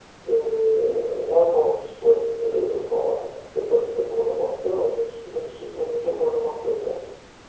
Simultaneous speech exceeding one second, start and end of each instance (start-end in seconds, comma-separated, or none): none